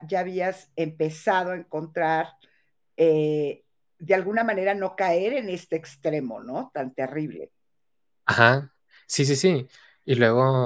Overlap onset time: none

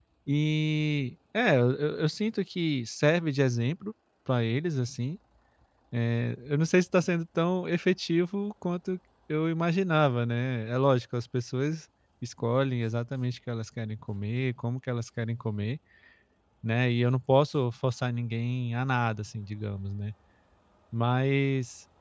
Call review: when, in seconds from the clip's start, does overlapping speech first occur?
none

